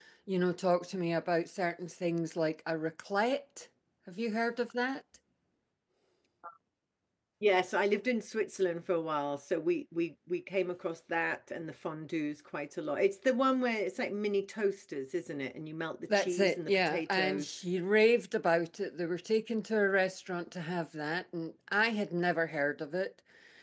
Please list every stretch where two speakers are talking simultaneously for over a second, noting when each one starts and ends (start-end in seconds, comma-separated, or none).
16.1-17.6